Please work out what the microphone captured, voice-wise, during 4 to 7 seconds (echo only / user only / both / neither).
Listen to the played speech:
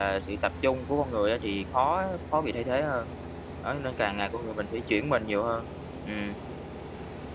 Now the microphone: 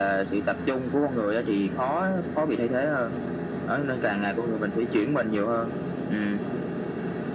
echo only